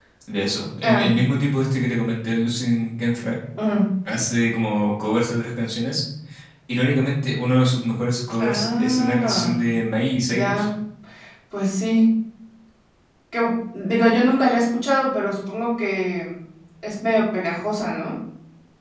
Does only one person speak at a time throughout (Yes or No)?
No